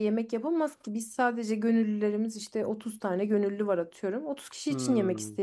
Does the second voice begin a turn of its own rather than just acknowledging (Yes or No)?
Yes